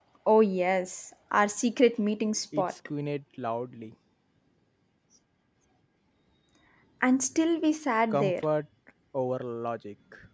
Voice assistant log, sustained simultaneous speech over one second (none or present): none